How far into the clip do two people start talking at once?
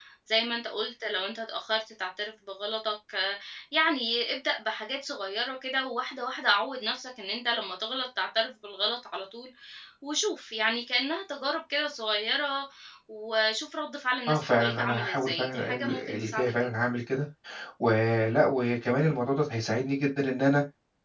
14.3 s

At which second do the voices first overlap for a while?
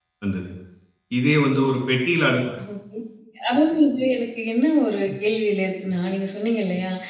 none

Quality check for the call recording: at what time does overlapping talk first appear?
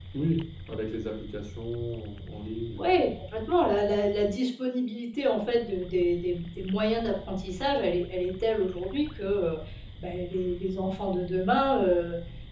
none

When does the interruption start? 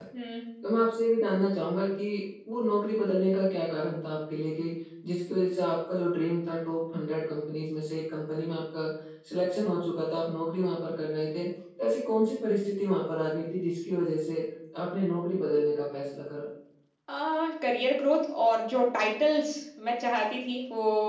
none

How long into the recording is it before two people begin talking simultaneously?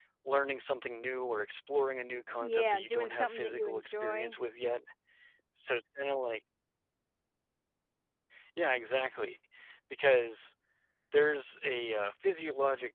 2.4 s

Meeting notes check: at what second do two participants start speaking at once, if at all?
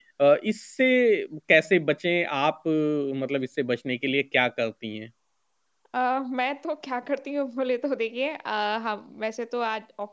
none

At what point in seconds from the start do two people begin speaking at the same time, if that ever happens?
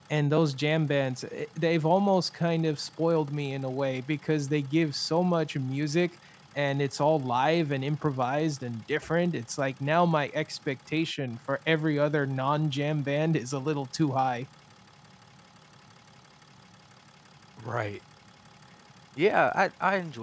none

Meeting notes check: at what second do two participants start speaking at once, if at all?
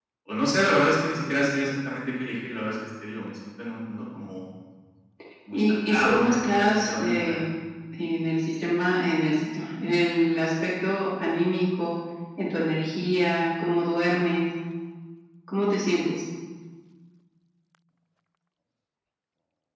5.5 s

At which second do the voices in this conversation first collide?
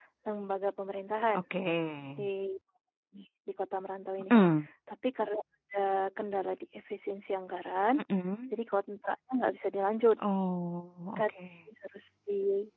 none

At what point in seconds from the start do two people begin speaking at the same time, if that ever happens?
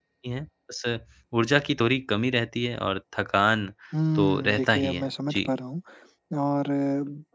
4.2 s

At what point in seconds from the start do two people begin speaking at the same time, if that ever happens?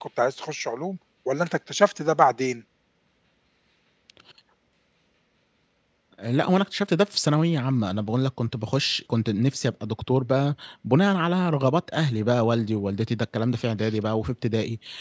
none

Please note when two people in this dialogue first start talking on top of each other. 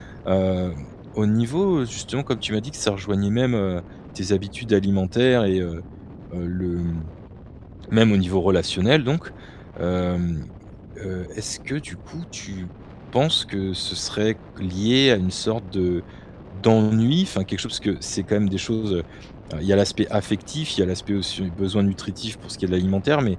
none

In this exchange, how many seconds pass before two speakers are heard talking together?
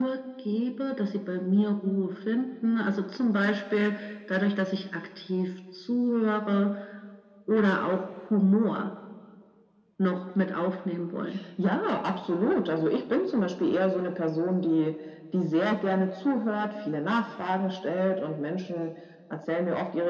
none

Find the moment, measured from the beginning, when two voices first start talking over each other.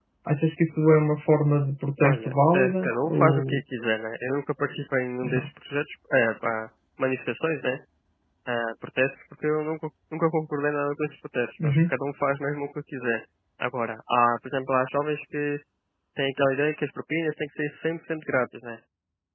2.0 s

